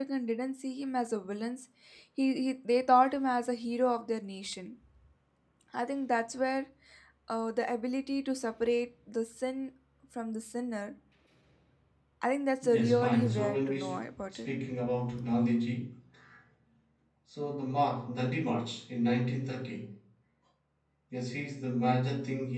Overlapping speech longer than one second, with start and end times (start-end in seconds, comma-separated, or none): 12.6-14.5